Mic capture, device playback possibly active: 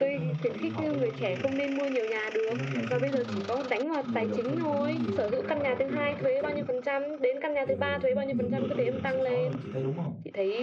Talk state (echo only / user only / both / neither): both